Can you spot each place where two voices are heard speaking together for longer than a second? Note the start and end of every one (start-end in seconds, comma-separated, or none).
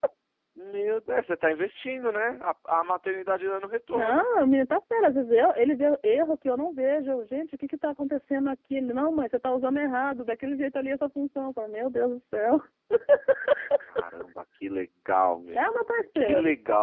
none